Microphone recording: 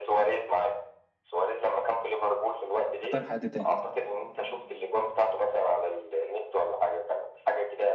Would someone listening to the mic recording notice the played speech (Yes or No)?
Yes